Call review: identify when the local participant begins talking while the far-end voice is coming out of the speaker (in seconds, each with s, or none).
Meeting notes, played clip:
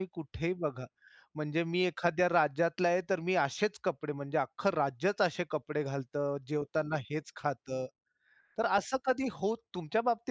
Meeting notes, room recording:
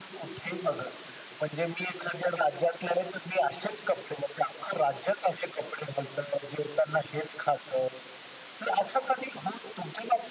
none